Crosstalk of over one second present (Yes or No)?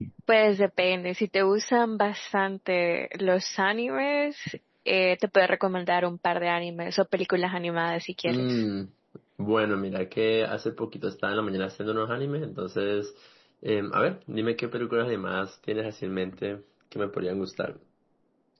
No